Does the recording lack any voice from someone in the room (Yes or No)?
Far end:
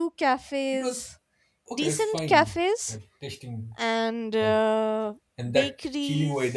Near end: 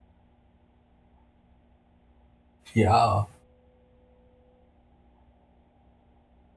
No